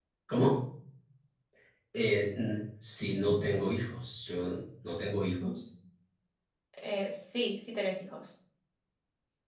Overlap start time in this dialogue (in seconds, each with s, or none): none